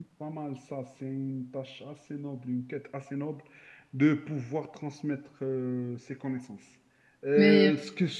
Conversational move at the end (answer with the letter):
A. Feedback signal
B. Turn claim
A